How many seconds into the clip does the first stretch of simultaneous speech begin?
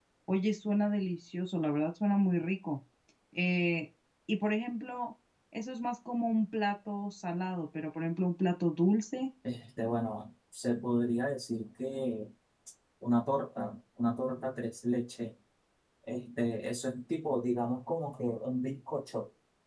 none

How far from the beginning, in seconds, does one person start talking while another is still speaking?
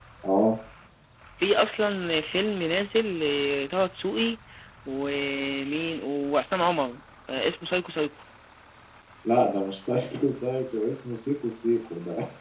none

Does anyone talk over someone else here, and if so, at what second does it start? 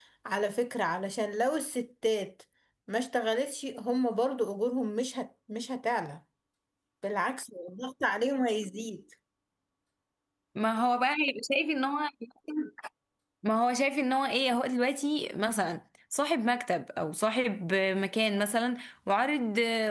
none

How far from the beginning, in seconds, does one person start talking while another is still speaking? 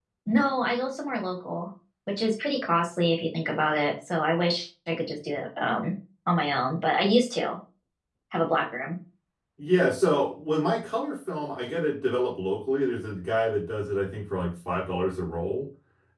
none

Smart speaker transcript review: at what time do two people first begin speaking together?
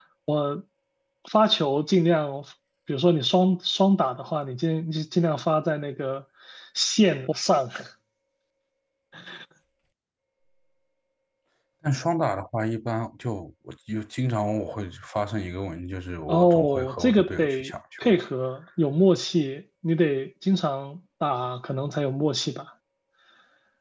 16 s

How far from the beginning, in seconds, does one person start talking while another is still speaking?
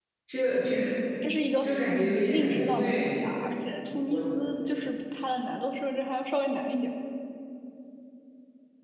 2 s

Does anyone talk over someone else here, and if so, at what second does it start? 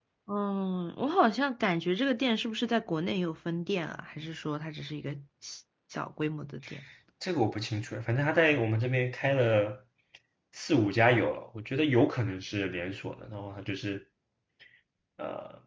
none

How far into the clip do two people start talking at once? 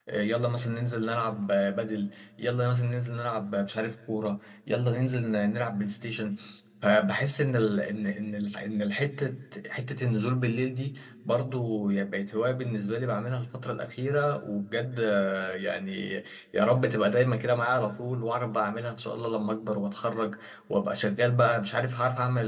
none

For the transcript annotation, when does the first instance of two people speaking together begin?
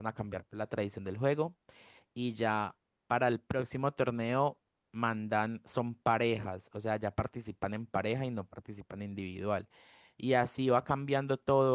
none

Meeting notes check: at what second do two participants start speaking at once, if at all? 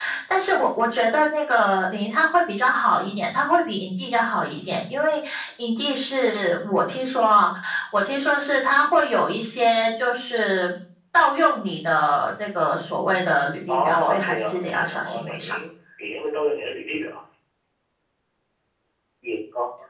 14 s

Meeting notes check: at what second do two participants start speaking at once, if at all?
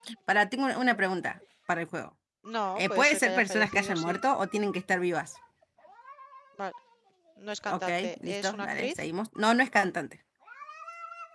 3 s

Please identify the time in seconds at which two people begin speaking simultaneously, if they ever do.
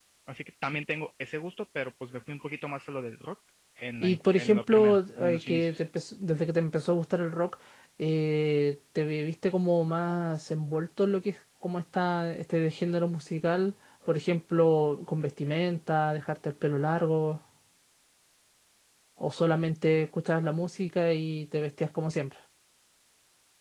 4 s

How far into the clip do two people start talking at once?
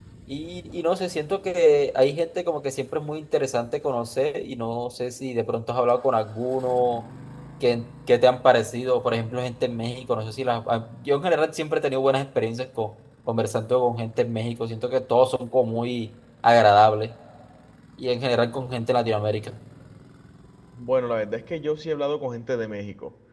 none

